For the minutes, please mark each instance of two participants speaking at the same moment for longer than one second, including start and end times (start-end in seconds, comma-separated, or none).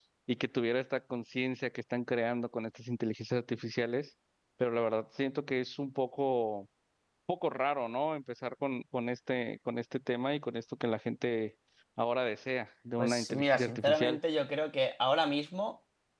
13.0-14.2